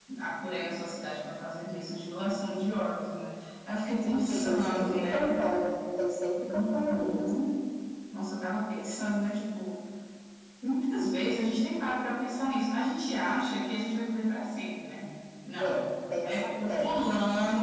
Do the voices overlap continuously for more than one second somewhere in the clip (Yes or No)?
Yes